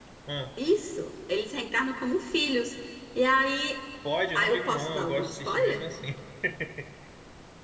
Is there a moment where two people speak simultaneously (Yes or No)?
Yes